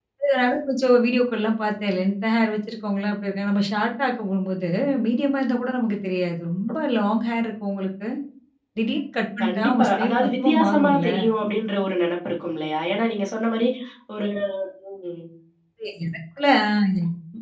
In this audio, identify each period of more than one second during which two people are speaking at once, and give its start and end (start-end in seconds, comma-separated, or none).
9.4-11.1